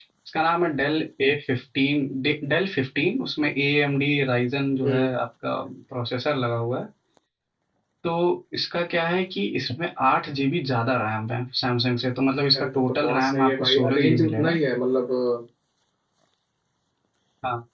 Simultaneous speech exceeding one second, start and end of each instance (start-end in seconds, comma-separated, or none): 12.6-14.6